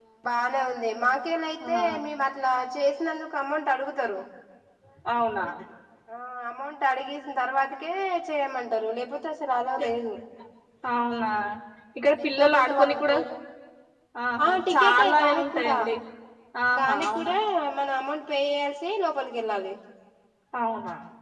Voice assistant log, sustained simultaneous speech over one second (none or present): present